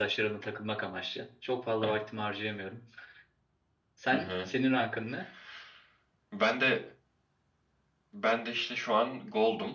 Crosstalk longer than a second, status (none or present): none